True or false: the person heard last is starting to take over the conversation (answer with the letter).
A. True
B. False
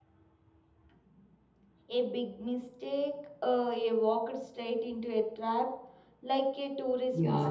A